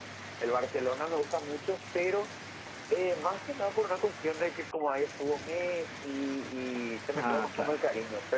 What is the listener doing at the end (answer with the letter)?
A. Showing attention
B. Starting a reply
A